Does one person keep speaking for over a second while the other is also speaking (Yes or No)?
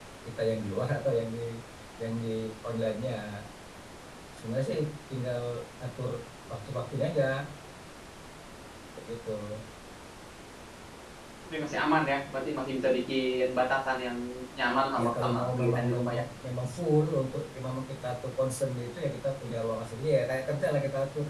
Yes